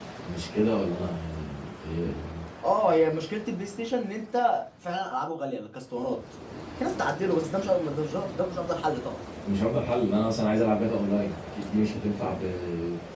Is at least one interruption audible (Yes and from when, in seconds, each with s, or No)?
No